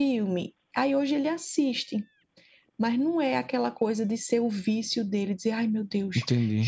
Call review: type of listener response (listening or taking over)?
listening